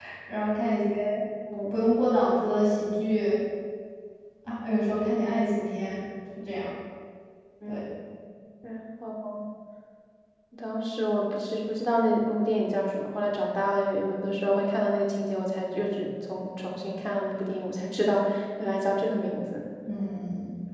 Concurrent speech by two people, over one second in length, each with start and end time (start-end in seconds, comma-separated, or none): none